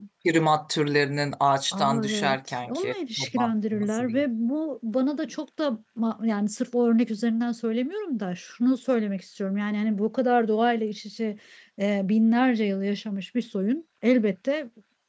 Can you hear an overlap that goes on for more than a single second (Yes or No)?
Yes